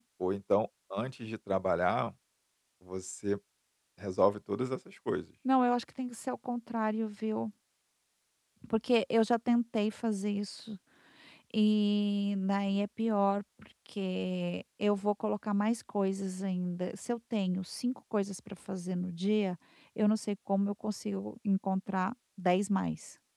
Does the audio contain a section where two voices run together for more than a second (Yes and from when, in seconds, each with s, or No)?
No